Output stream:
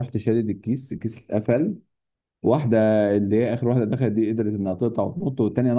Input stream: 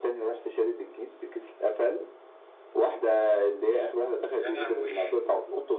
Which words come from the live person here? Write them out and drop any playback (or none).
يا لهوي